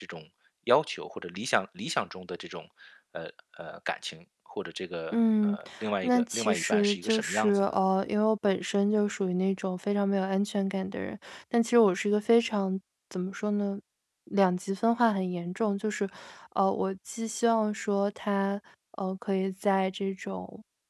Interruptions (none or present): present